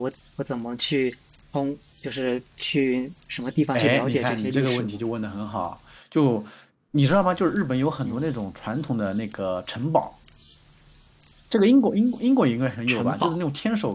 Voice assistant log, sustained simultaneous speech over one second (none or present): present